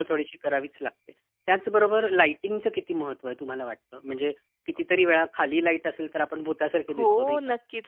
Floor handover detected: Yes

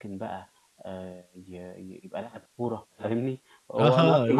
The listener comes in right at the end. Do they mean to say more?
Yes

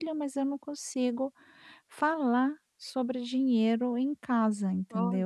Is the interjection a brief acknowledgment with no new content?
No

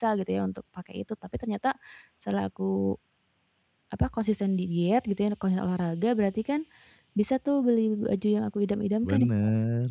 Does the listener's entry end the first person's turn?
Yes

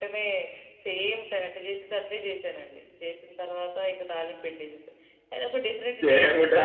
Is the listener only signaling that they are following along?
No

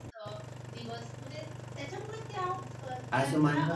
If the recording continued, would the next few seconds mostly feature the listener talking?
Yes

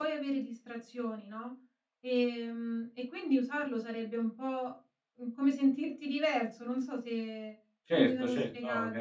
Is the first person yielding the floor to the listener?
Yes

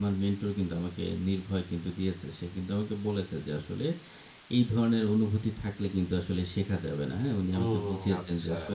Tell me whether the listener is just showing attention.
No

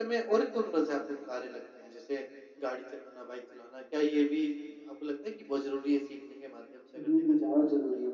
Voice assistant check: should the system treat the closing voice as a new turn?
Yes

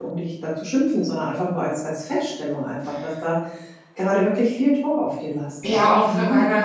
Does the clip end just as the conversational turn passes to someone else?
Yes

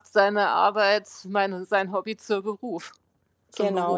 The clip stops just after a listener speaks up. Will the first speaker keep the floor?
No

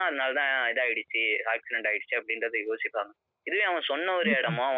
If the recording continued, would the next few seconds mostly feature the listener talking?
No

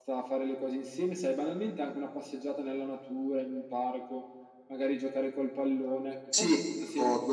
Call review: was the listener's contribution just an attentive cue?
No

